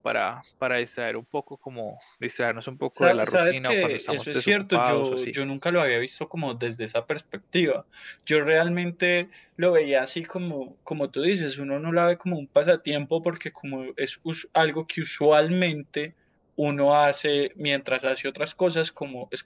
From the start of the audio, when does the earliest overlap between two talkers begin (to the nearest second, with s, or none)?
3 s